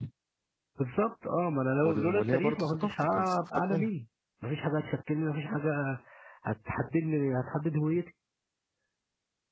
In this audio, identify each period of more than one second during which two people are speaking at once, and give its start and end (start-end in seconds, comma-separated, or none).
1.8-3.9